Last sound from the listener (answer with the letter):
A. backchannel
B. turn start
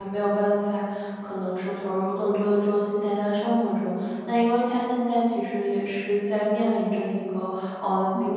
A